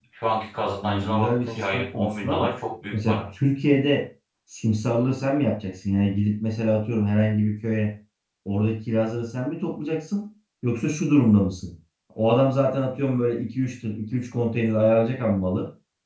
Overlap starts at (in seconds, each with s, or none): 0.8 s